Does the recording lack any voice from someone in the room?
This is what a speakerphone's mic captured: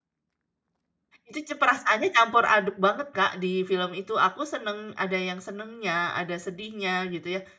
No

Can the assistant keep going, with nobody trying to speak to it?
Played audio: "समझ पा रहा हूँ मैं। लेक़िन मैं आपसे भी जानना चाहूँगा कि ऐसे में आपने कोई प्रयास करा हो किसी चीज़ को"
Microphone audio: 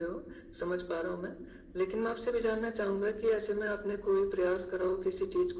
Yes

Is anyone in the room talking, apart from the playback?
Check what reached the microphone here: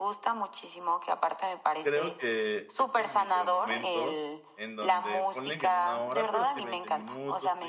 Yes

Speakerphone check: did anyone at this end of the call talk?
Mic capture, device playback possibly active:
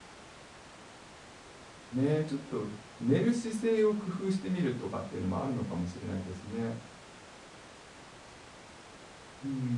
Yes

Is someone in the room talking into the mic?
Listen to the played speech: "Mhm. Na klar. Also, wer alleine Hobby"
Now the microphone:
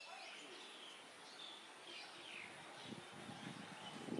No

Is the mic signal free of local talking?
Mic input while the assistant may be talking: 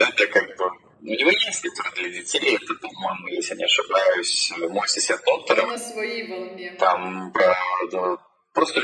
No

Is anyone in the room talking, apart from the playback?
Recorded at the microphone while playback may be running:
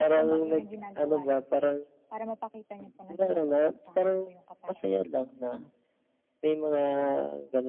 Yes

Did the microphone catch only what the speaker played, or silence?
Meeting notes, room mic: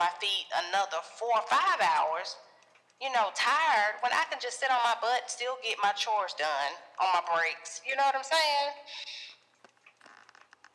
Yes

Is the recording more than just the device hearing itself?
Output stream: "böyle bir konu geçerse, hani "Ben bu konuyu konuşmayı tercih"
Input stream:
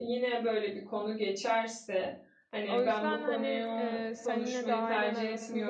Yes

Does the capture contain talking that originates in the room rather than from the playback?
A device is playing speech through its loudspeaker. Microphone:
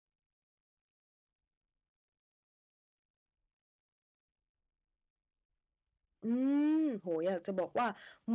Yes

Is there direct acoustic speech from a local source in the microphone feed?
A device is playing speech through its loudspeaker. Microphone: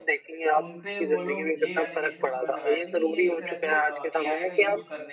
Yes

